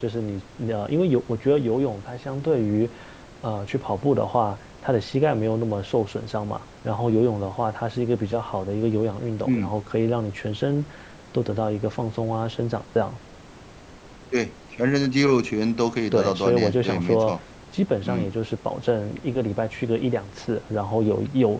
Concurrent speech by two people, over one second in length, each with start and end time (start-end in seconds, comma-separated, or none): 16.1-17.4